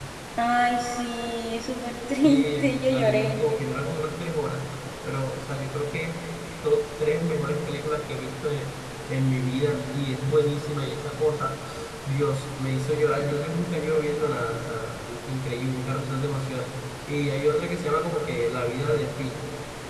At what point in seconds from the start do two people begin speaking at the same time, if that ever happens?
2.1 s

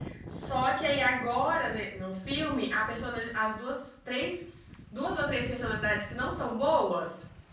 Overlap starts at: none

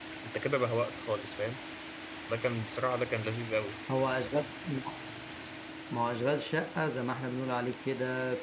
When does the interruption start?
none

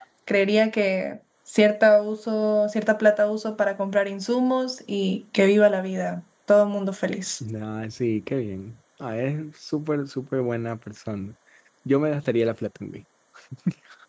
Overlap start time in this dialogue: none

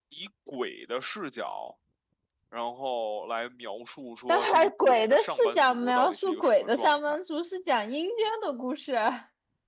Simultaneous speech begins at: 4.3 s

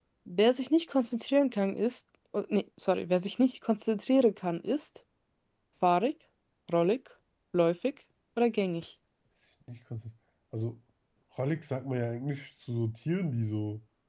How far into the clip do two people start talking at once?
none

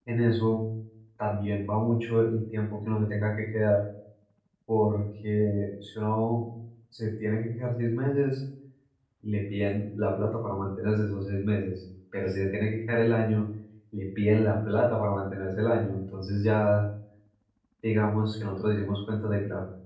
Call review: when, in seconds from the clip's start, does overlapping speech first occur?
none

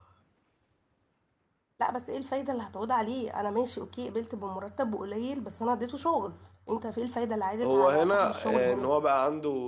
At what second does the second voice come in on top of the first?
7.6 s

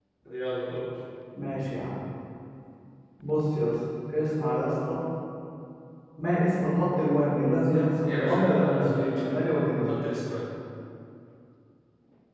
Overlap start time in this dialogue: 8.0 s

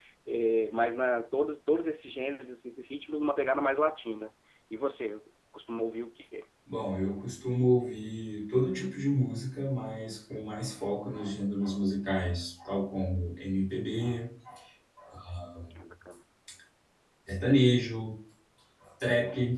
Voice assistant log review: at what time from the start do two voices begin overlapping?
none

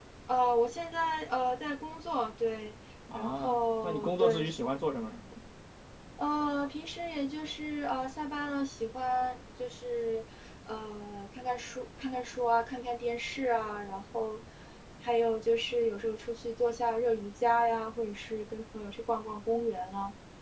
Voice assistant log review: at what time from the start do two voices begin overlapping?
3.1 s

